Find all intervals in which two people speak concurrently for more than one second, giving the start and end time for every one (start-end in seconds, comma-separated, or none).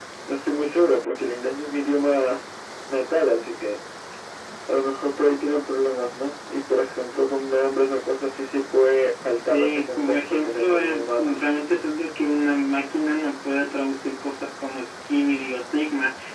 9.5-11.4